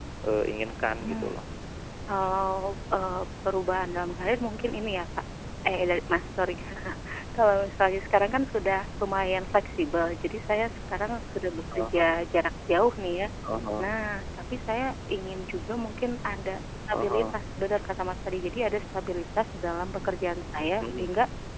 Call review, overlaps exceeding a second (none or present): none